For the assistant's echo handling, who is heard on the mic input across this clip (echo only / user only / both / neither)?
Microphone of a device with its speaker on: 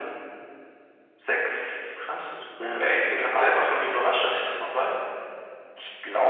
echo only